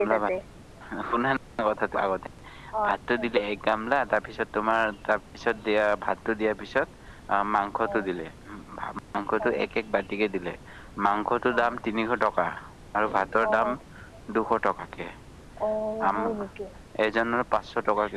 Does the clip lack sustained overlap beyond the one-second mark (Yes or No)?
Yes